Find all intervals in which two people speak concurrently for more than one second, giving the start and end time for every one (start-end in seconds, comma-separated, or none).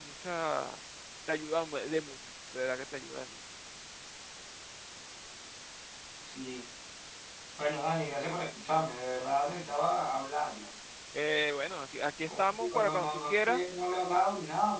12.3-13.6